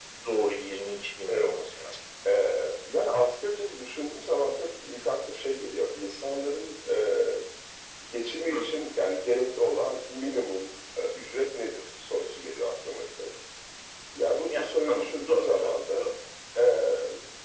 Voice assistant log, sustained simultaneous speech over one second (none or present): present